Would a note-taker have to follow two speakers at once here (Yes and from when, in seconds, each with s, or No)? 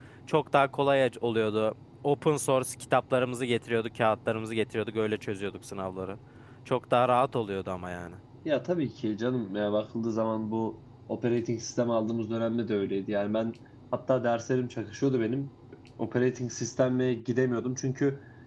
No